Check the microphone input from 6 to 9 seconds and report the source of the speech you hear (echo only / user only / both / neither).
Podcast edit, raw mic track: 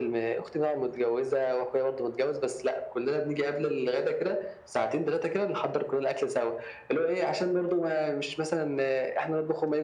echo only